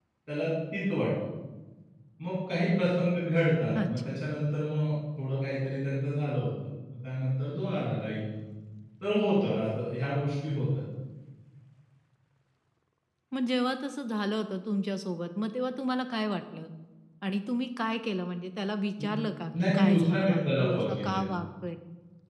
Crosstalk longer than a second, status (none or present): present